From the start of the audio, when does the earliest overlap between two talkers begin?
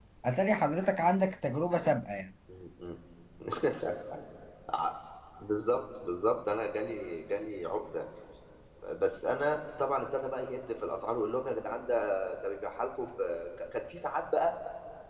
none

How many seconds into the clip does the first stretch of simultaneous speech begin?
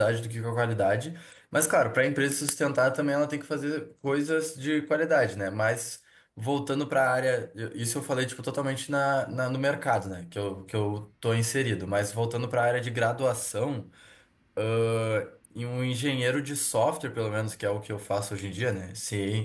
none

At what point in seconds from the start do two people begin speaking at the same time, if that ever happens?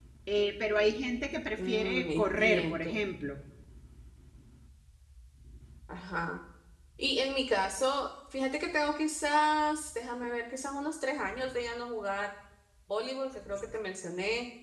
2 s

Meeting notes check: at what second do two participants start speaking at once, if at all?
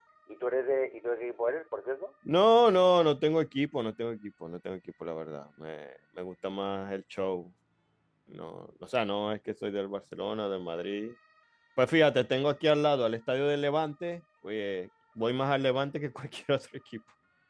none

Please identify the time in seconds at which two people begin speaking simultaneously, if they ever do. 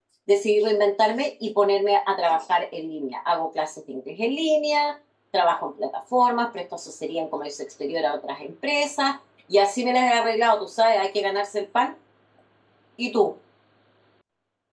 none

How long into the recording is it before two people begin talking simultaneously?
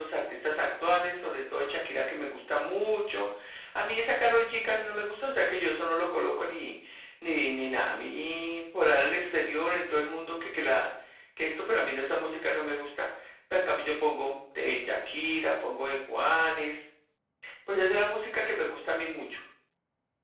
none

